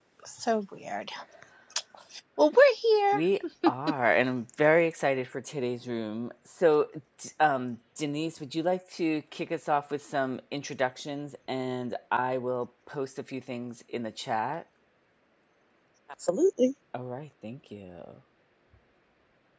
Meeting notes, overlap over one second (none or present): none